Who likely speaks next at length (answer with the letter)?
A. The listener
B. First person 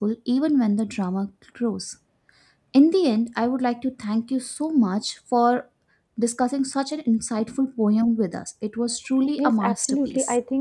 A